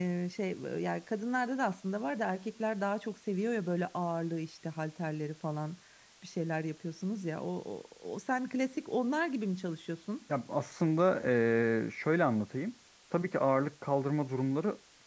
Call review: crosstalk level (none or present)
none